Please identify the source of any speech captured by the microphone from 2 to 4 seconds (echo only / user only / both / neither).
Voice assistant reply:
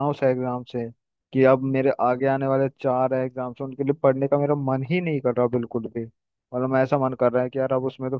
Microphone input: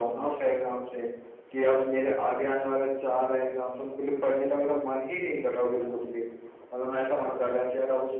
echo only